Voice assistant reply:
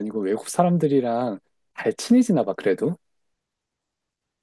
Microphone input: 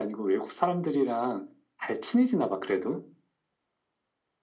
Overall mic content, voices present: echo only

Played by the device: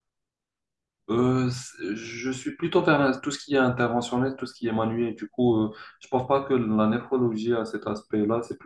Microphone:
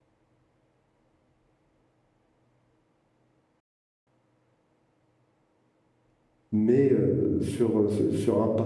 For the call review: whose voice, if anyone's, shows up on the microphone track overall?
user only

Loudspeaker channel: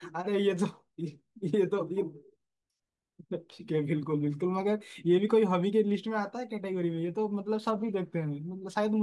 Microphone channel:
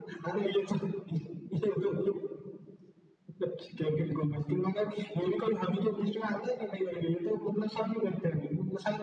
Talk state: echo only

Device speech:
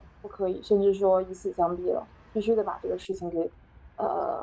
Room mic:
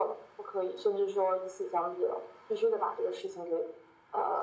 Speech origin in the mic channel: echo only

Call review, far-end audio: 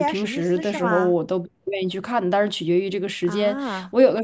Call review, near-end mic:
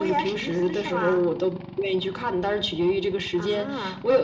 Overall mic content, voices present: echo only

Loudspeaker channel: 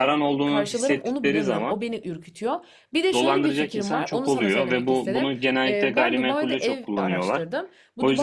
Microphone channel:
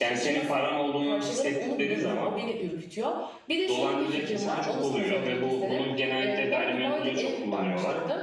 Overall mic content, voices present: echo only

